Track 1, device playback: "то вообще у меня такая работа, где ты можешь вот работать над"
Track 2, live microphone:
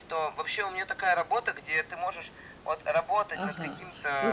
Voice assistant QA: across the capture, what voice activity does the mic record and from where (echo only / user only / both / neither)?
both